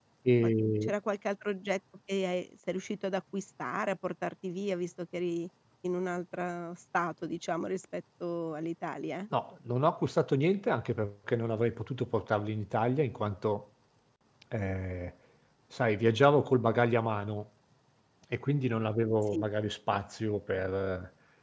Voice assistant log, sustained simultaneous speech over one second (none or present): none